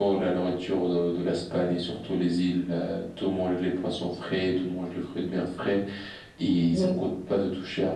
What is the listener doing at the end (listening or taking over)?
listening